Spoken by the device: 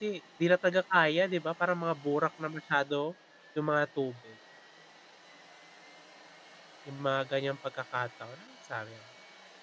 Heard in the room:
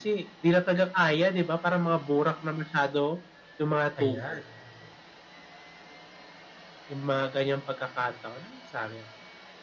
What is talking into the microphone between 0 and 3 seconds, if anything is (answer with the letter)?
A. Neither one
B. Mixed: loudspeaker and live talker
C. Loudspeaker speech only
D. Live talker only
C